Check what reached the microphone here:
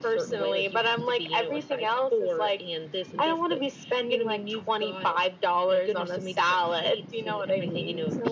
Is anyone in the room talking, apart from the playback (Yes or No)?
No